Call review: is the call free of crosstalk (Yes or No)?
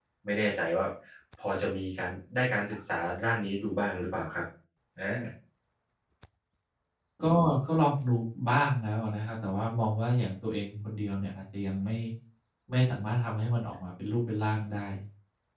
Yes